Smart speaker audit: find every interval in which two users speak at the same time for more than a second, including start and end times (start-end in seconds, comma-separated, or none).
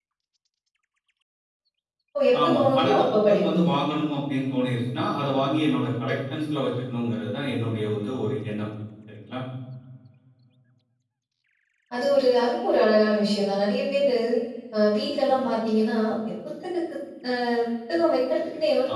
2.4-3.7